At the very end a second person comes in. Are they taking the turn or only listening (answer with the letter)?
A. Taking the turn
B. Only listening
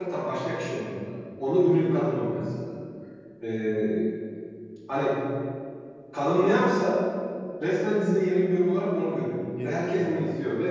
B